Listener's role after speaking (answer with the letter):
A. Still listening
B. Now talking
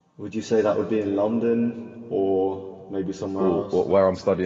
B